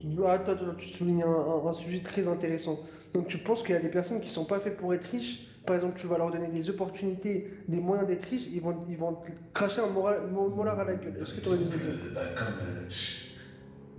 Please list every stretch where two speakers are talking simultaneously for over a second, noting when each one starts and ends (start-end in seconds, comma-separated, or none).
10.5-12.0